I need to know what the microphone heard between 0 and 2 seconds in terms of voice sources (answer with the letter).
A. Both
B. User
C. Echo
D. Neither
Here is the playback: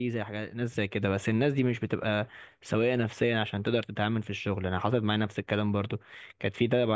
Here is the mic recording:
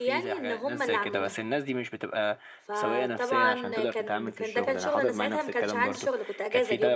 A